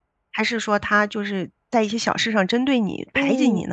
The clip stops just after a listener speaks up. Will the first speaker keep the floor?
No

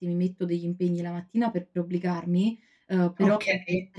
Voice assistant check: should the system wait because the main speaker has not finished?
Yes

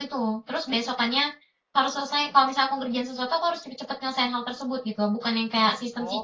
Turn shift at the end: No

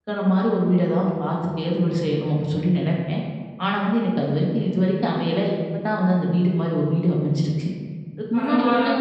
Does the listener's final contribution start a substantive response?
Yes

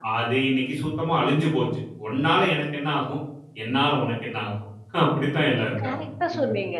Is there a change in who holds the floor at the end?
Yes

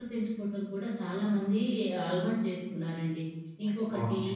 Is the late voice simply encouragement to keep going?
Yes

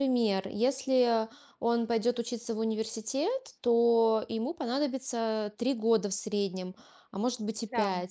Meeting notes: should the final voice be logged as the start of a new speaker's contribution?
No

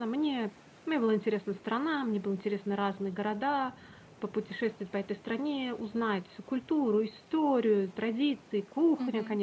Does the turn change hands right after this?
Yes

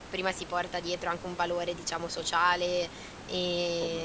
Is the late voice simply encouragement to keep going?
Yes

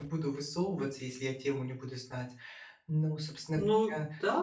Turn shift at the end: Yes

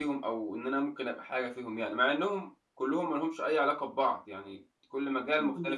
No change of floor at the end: No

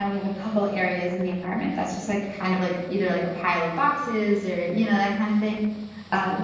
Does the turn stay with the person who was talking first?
Yes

